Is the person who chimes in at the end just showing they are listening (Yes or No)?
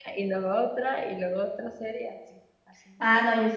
No